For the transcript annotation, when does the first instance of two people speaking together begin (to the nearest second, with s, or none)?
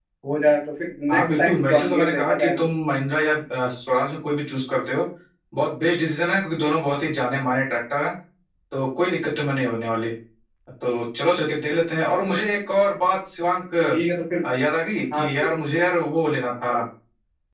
1 s